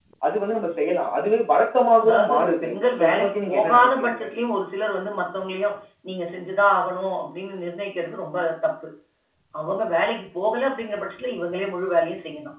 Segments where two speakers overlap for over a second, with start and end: 2.0-4.2

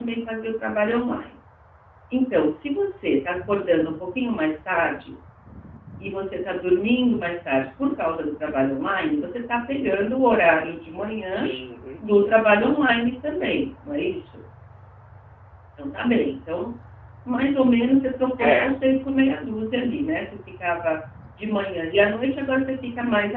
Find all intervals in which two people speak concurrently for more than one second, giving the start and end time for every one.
none

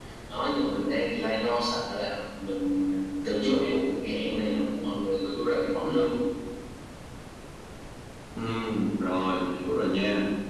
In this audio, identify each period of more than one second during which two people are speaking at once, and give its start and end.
none

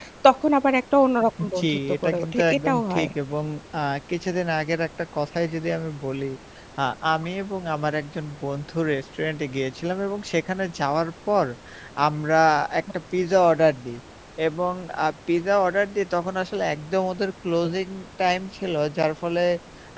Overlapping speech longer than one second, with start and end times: 1.6-3.1

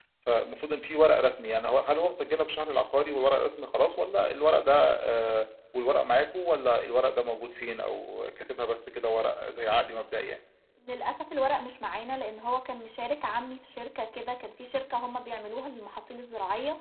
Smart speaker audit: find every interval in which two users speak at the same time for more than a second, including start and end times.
none

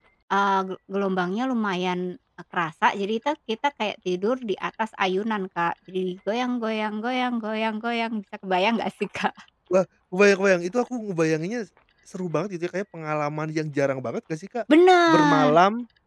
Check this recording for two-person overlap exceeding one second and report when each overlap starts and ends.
none

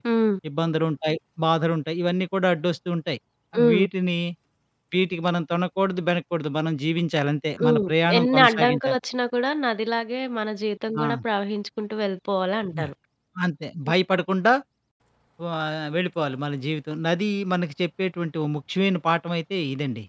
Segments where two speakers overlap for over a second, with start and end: 7.6-9.0

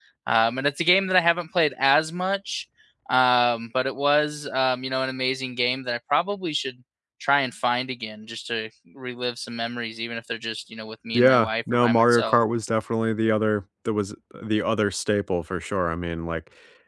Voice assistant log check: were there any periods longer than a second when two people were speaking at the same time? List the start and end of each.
11.1-12.4

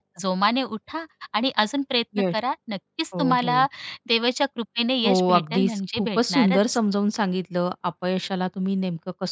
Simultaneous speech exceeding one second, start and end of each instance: 5.0-6.6

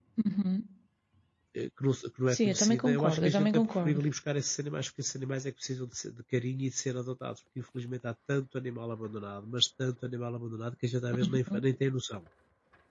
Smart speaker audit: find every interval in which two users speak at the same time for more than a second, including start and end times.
2.3-4.0

